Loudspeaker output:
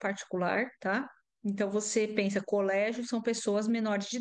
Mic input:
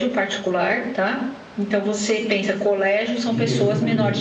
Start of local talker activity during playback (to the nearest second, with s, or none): 3 s